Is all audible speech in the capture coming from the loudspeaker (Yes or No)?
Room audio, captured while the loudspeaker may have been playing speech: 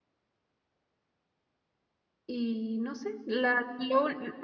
No